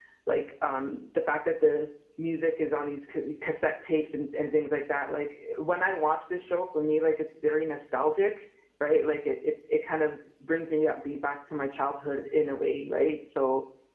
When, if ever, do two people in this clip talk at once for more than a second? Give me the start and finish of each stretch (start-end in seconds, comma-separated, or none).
none